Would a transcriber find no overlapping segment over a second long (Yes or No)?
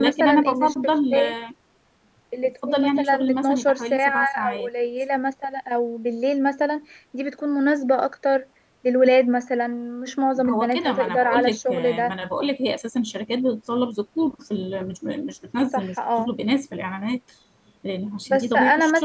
No